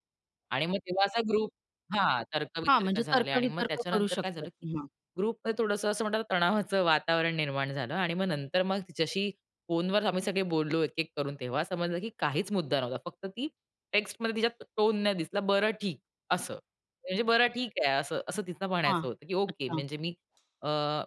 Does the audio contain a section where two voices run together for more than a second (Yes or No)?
Yes